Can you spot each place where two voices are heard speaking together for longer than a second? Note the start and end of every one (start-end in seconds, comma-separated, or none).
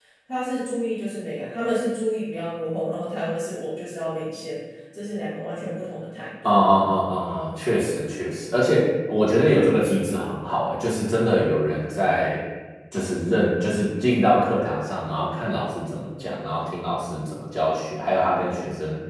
none